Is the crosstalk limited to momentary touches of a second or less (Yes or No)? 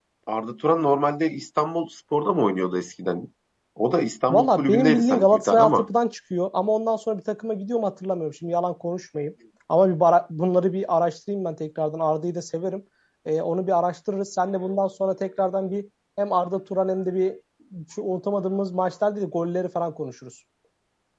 No